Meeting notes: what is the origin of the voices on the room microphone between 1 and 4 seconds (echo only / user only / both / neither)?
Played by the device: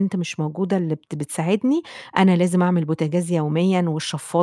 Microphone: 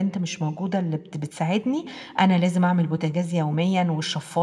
echo only